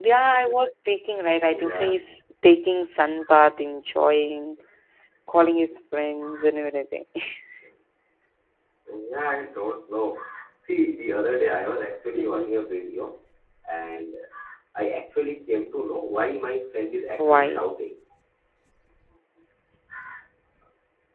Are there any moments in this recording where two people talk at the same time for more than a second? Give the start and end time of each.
none

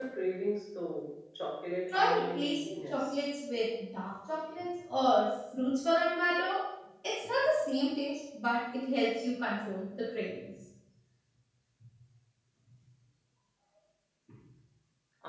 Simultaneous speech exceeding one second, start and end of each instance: 1.9-3.1

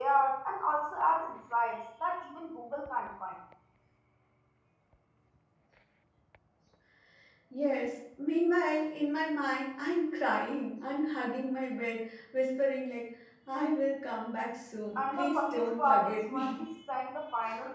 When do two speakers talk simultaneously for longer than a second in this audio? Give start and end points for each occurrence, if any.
15.0-16.6

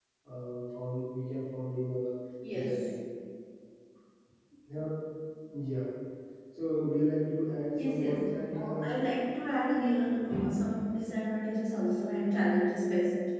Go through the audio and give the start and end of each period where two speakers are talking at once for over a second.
7.8-9.1

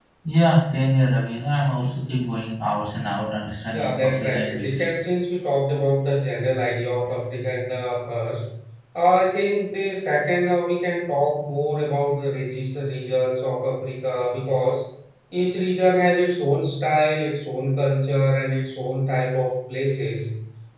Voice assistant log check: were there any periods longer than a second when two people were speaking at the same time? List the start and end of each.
3.7-4.9

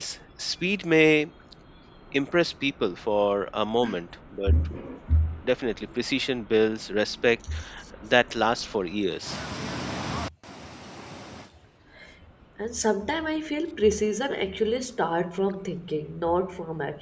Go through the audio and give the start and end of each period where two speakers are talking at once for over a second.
none

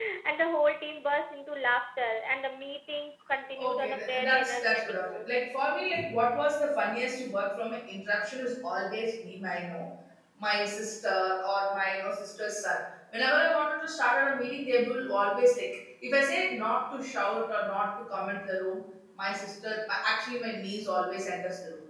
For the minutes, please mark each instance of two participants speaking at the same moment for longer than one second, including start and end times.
3.6-5.3

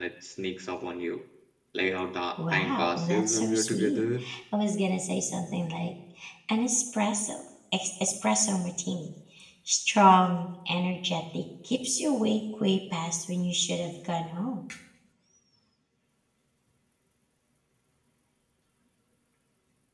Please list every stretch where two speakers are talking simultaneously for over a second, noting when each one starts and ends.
2.5-4.0

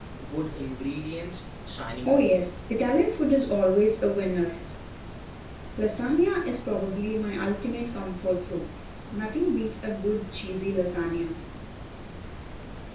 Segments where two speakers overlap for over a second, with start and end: none

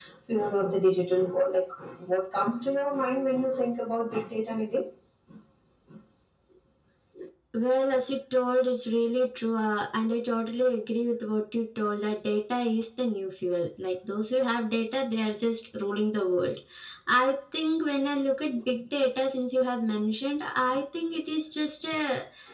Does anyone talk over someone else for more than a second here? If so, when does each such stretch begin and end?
none

